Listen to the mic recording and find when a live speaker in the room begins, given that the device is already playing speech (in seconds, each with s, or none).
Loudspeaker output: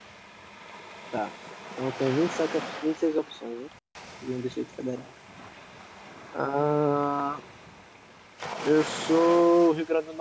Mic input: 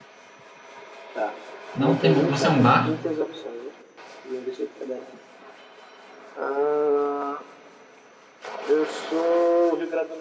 1.7 s